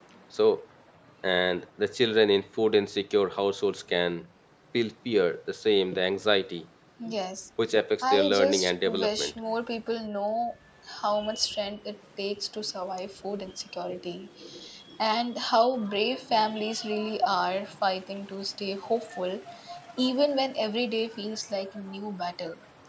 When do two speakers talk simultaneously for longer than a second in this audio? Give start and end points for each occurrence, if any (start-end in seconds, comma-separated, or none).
8.1-9.3